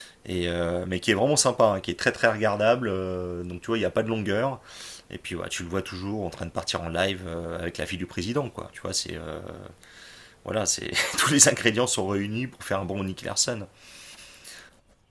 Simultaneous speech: No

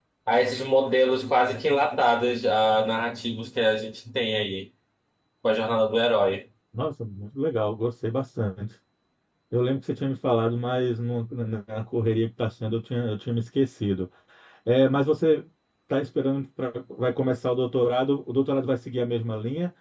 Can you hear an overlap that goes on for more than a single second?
No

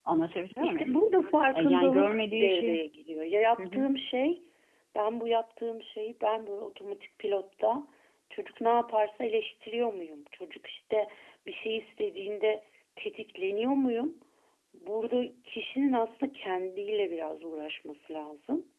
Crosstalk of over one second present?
Yes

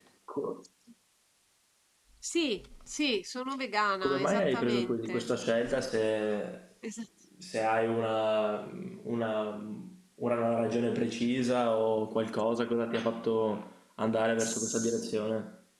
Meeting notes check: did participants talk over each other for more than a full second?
Yes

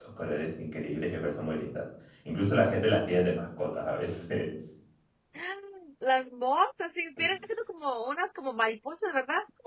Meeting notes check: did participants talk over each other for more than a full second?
No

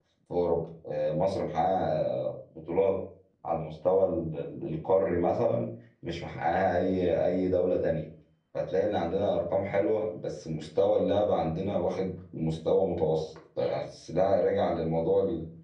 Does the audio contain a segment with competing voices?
No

